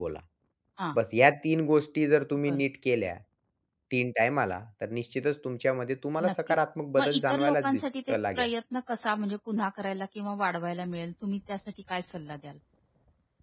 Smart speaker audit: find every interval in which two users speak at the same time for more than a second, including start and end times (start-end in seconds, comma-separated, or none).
7.0-8.5